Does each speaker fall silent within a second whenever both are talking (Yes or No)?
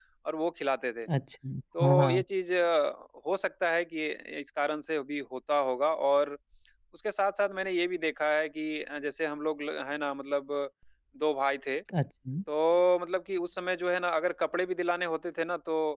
Yes